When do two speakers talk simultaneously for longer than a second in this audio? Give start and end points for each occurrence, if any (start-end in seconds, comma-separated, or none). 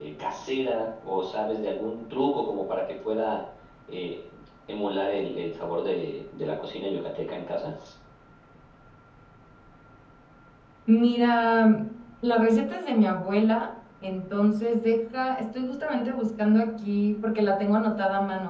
none